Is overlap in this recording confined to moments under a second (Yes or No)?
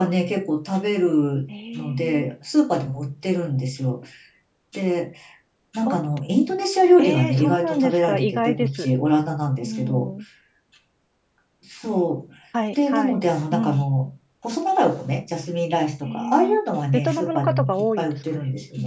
No